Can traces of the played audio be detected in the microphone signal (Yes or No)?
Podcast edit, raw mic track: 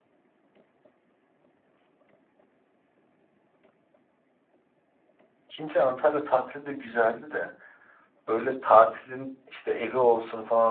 No